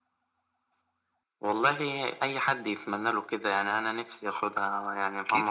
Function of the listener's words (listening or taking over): taking over